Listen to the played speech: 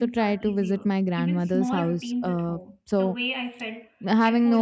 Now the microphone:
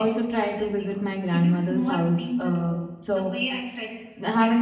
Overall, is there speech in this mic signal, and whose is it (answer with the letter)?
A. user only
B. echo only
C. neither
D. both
B